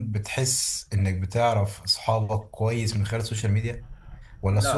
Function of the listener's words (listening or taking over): listening